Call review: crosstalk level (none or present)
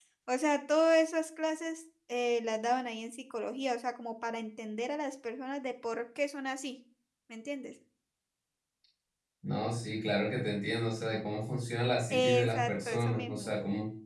present